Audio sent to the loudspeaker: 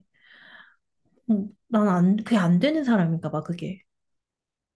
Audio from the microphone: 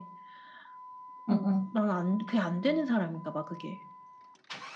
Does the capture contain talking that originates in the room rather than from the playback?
Yes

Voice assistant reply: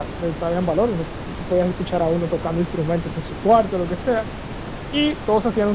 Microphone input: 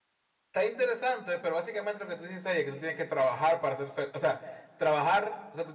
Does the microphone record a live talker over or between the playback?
Yes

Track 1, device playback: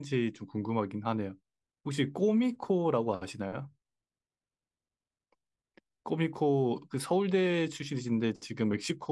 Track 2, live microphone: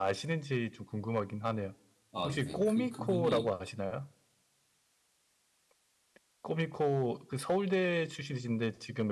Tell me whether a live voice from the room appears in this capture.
Yes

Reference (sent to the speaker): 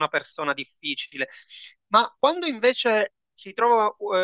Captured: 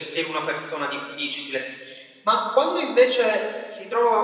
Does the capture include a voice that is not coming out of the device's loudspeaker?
No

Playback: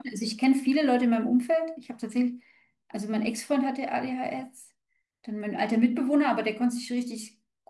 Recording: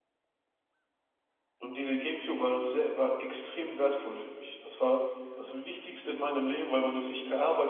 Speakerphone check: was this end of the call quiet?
No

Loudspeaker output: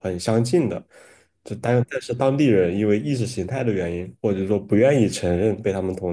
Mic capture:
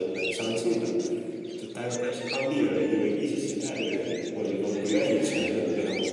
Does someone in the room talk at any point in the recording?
No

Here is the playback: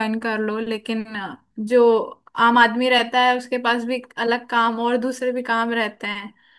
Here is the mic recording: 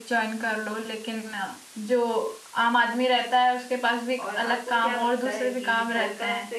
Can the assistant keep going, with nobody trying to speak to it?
No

